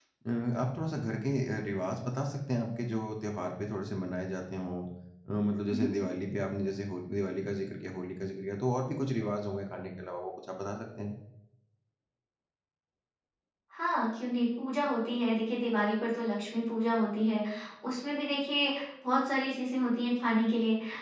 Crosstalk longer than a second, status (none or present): none